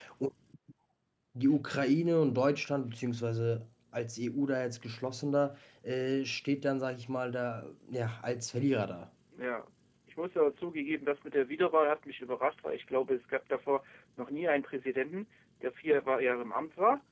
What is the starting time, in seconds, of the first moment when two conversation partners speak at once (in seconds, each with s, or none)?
none